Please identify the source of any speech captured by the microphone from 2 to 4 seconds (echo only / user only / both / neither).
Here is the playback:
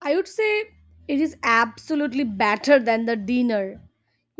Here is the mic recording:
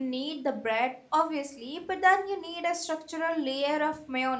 user only